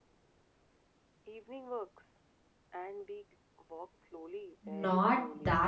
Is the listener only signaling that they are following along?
No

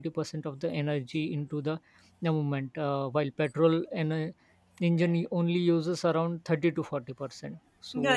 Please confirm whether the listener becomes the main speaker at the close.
Yes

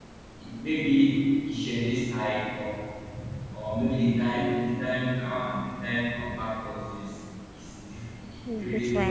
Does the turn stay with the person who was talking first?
Yes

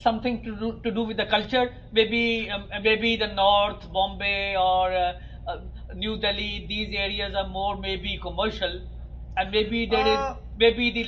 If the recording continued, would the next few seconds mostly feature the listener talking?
No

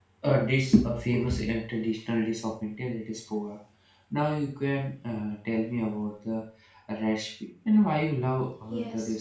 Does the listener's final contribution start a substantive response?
Yes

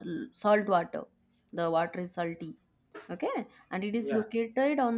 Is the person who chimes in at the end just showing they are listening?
Yes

